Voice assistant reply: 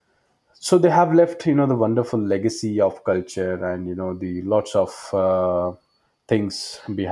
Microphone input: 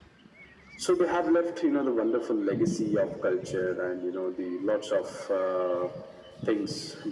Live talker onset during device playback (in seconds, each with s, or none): none